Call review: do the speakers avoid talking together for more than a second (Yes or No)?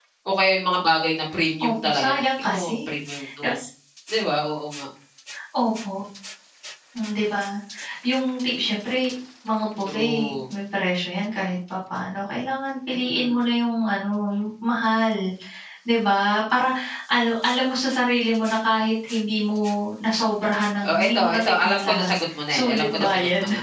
No